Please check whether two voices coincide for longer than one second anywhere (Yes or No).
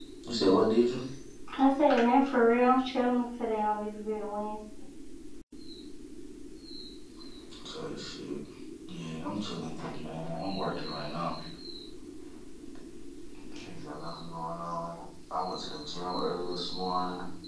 No